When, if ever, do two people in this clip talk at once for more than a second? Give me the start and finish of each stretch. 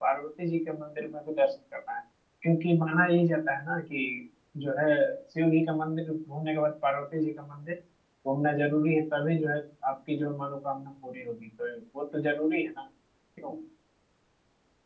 none

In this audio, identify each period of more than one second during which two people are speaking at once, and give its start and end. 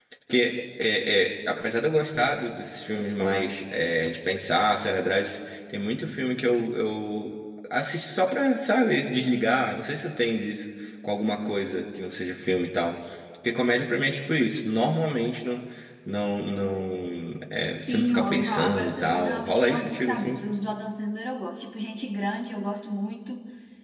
17.8-20.4

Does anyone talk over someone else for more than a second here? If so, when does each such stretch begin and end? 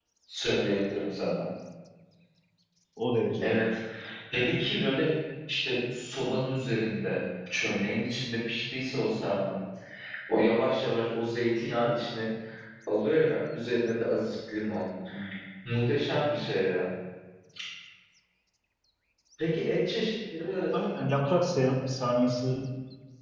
none

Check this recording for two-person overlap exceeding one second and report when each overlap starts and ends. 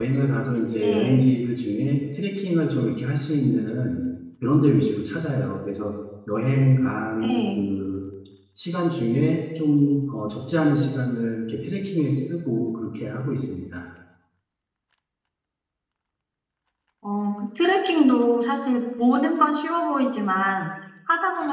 none

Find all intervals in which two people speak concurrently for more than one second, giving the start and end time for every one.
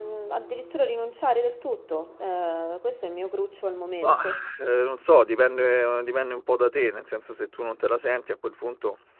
none

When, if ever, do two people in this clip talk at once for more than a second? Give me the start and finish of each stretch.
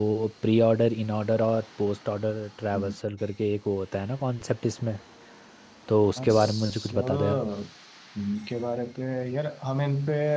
6.2-7.4

